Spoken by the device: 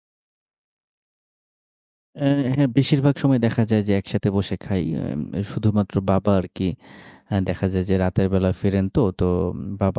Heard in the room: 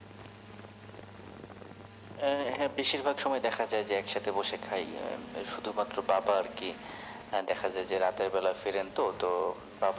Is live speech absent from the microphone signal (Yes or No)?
Yes